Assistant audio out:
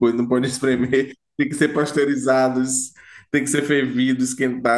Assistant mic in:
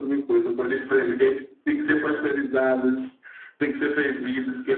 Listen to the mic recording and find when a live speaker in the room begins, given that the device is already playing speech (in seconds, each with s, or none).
none